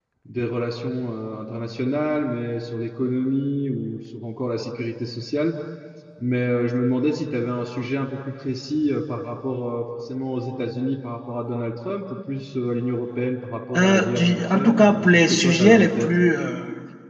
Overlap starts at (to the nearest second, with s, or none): 14 s